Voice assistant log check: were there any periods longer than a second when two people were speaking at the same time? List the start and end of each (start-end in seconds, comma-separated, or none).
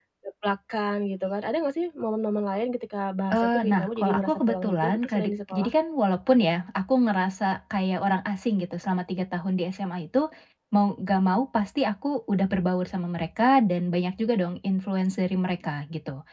3.3-5.7